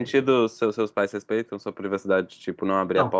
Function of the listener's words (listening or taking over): taking over